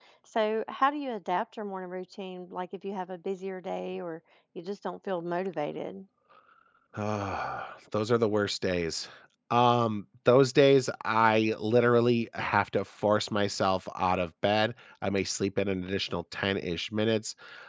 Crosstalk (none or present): none